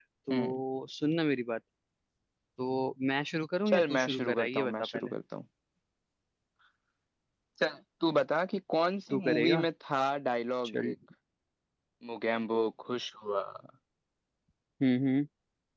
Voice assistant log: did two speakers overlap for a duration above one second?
Yes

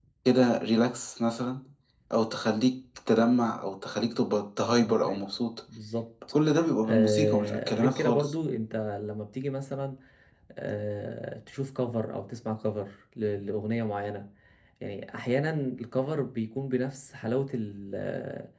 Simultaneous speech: Yes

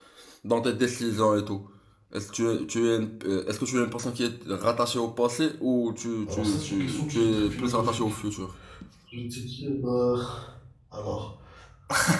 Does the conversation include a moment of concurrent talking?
Yes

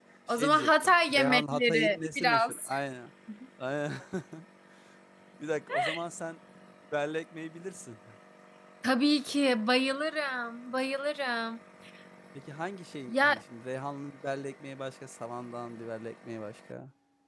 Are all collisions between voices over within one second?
No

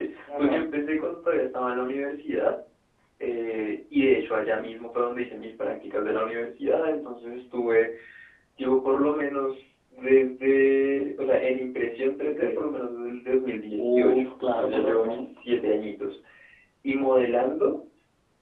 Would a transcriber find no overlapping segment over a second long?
No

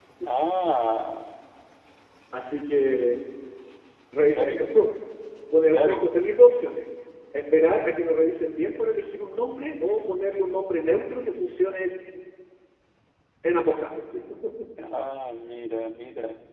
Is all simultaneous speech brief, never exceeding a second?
Yes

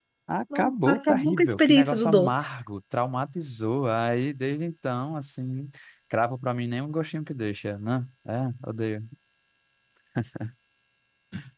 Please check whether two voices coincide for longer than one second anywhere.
Yes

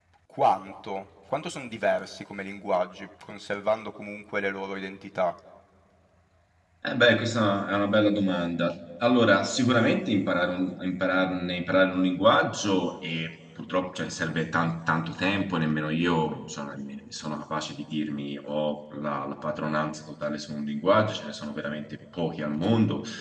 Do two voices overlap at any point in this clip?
No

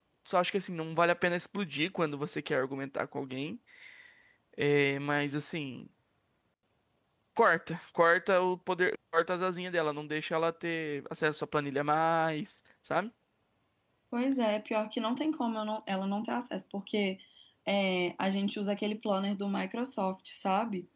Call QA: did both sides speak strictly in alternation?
Yes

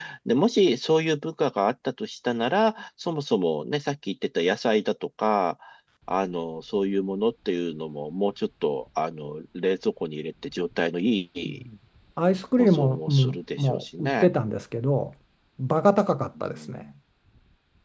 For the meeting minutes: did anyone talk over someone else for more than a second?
Yes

